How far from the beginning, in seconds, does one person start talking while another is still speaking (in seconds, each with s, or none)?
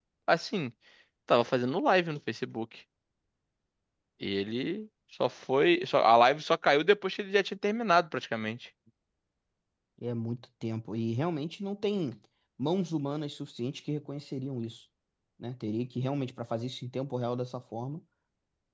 none